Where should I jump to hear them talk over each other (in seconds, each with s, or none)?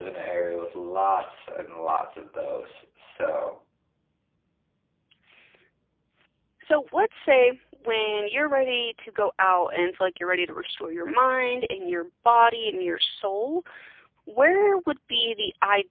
none